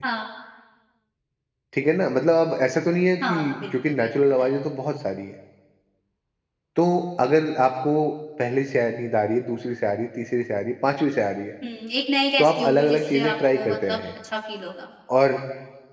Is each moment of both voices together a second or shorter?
No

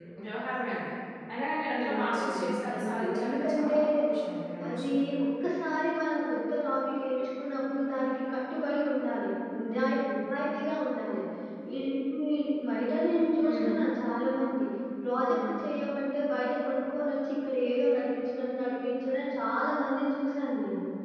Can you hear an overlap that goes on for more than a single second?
Yes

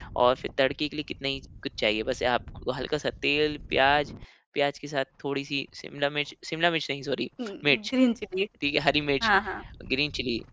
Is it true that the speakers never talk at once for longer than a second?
Yes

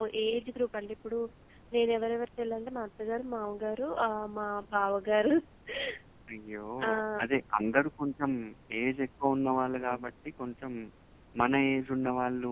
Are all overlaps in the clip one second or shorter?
Yes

